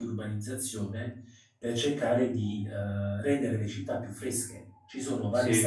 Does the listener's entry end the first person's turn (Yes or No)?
No